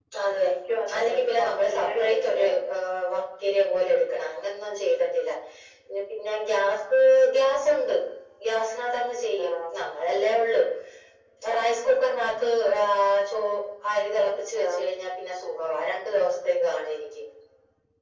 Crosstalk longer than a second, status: present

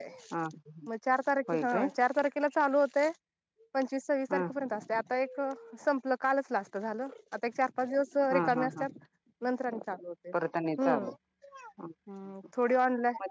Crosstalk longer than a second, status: none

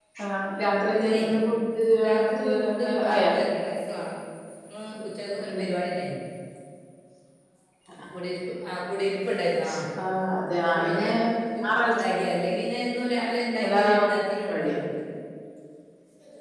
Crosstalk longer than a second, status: present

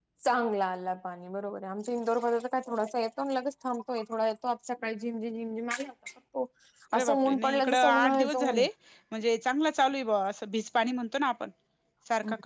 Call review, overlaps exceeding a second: present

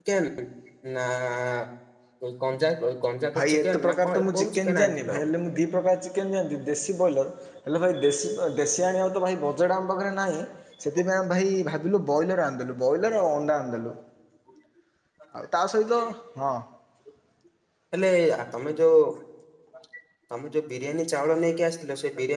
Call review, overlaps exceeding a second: present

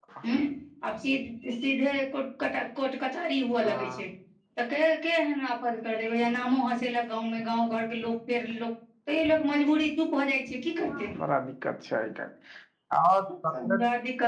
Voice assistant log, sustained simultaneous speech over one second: none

